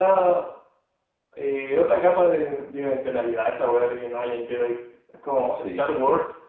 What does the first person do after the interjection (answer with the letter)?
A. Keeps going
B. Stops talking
A